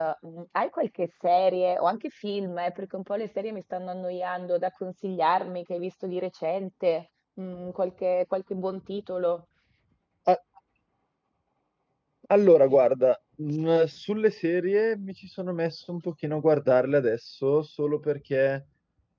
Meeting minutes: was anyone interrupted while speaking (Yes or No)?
No